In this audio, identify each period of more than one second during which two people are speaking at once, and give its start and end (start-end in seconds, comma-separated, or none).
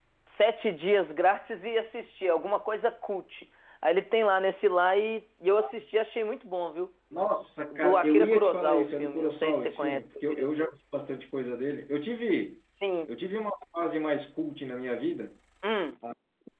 7.7-10.7